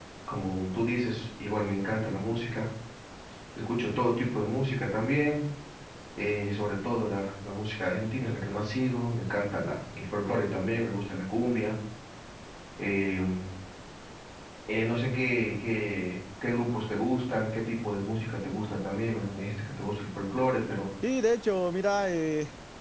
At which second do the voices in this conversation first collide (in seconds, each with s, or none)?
none